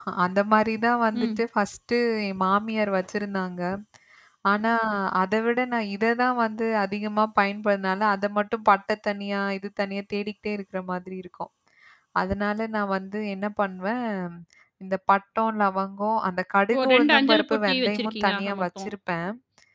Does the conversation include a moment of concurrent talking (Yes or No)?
Yes